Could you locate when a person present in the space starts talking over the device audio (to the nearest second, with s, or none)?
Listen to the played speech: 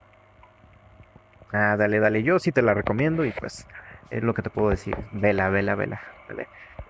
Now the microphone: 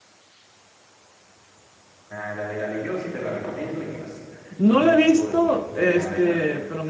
5 s